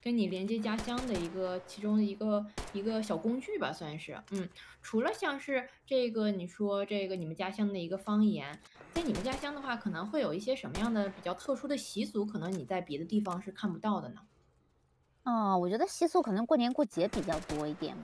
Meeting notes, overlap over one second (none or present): none